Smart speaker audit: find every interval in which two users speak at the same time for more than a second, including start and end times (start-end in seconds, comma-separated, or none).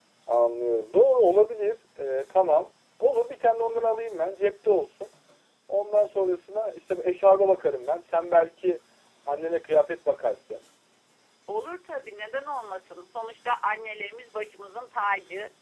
none